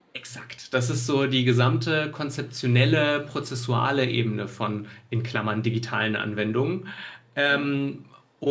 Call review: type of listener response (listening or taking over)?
listening